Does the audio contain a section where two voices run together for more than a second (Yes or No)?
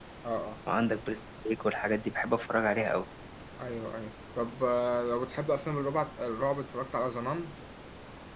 No